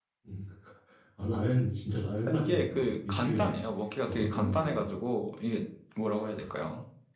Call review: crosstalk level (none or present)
present